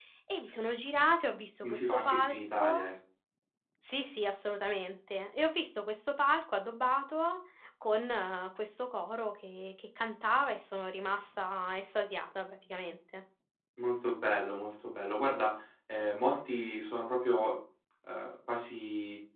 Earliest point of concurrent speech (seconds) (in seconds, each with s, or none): 1.6 s